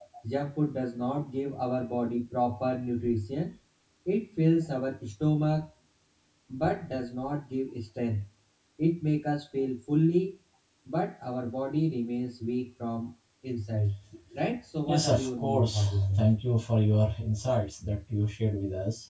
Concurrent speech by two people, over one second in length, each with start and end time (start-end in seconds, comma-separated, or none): 14.9-16.2